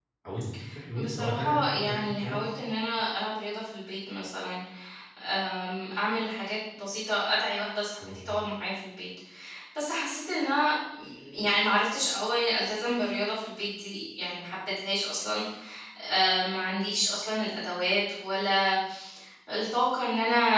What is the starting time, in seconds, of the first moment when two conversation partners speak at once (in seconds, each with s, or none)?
1.0 s